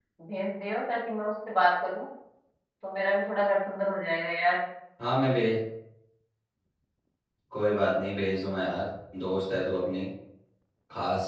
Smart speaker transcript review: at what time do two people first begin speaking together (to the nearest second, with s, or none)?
none